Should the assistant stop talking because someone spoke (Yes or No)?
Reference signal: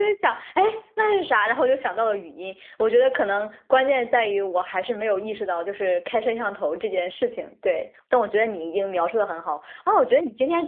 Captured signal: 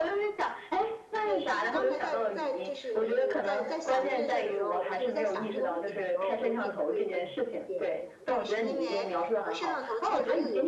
Yes